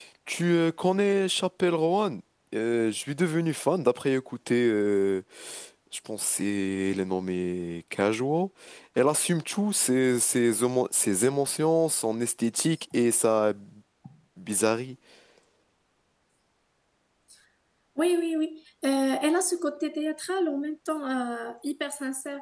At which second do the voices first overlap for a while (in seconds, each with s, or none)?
none